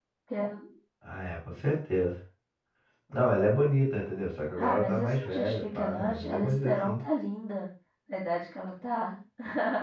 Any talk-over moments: Yes, from 4.6 s

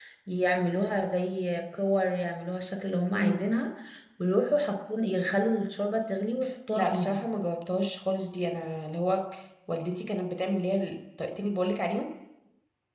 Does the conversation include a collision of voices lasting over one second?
No

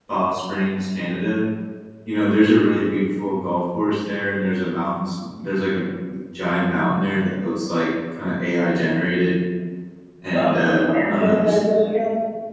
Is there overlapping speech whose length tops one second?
Yes, from 10.3 s

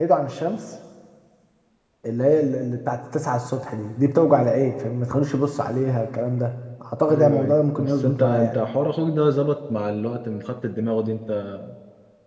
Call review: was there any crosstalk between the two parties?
Yes, from 7.1 s

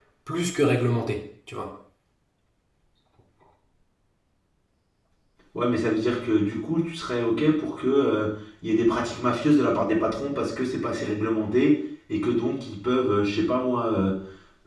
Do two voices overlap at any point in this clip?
No

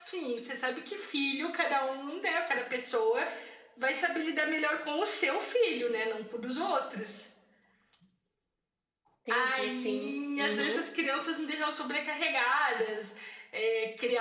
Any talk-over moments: Yes, from 9.3 s

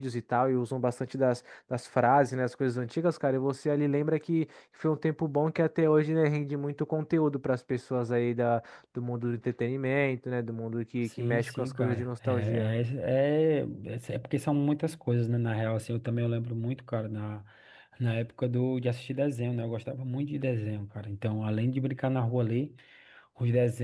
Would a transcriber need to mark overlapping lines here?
Yes, from 11.1 s

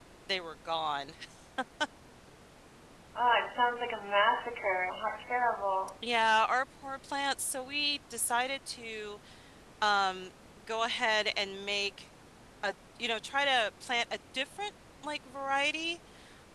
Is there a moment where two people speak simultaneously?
No

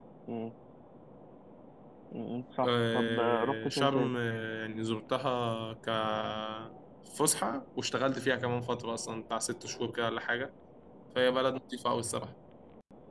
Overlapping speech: Yes, from 2.6 s

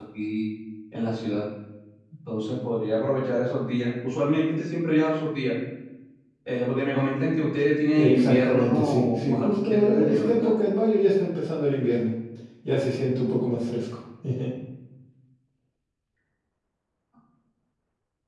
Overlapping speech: Yes, from 8.0 s

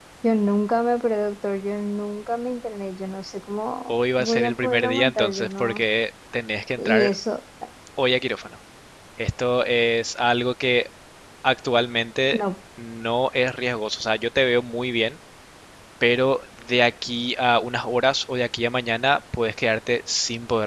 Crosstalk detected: Yes, from 3.9 s

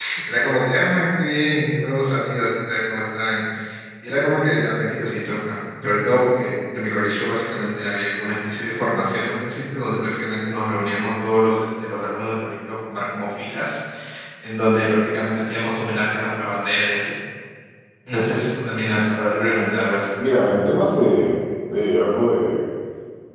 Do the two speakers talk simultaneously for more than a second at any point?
No

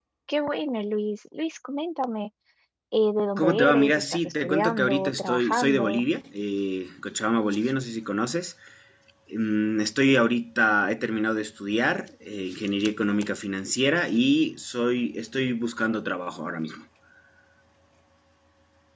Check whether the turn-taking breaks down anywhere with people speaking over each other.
Yes, from 3.4 s

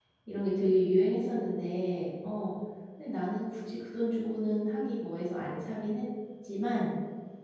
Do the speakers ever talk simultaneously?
No

